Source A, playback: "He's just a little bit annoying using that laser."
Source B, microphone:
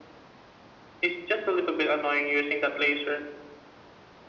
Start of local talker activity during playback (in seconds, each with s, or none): none